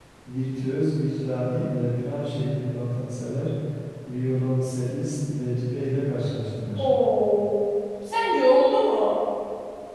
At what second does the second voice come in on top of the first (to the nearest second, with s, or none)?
none